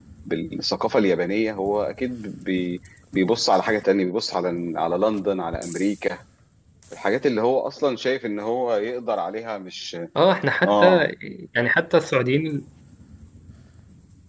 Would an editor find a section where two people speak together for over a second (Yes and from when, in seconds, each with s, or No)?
No